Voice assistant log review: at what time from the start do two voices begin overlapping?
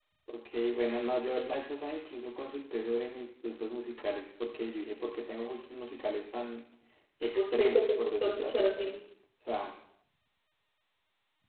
7 s

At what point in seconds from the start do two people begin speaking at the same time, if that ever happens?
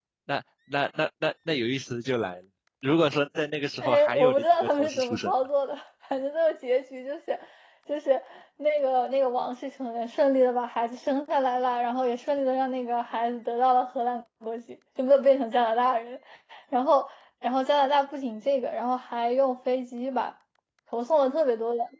4 s

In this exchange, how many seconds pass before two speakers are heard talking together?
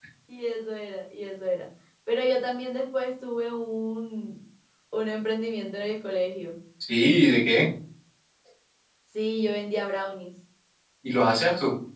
none

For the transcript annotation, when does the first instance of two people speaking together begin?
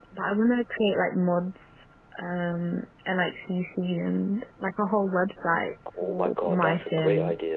6 s

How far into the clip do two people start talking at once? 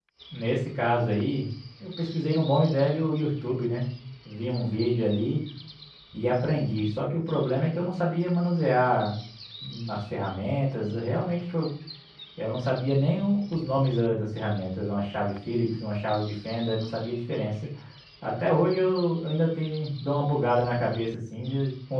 none

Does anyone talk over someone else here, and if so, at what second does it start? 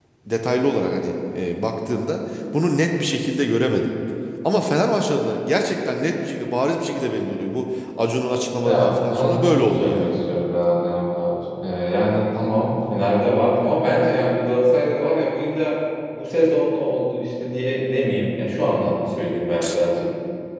9 s

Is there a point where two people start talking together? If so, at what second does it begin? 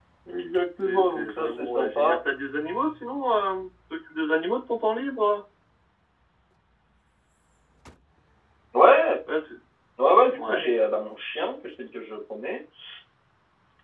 1 s

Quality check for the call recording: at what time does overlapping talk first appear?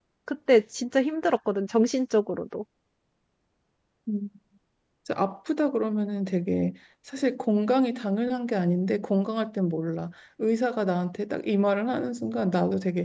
none

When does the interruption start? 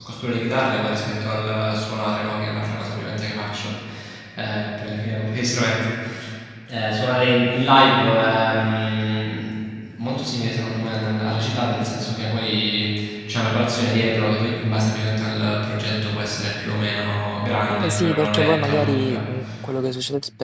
18 s

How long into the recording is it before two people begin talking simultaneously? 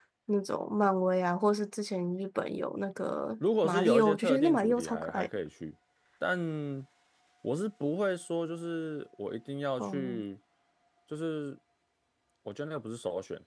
4 s

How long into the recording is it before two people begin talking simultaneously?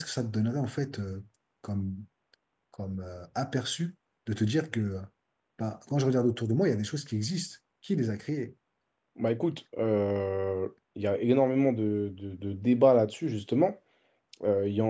none

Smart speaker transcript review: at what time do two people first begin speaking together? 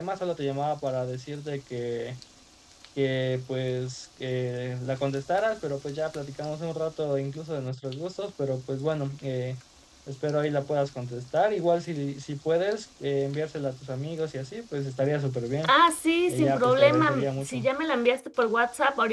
16 s

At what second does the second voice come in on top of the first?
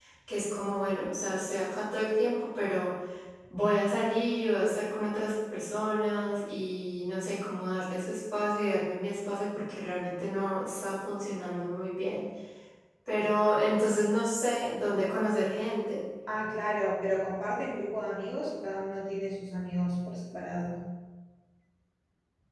none

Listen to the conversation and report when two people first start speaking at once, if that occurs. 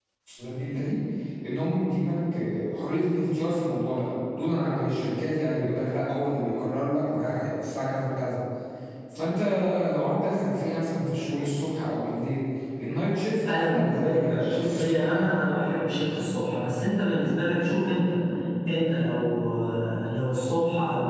13 s

